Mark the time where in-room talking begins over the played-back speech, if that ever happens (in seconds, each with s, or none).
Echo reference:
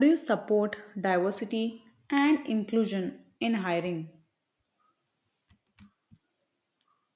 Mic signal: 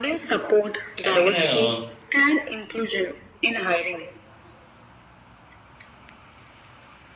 1.0 s